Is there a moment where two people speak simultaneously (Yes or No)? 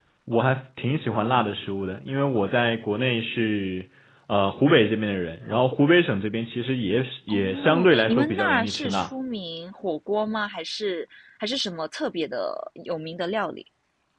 Yes